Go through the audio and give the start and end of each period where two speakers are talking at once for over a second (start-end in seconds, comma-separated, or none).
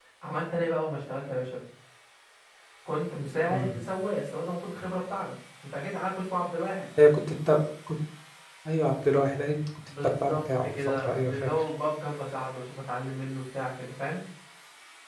10.0-11.7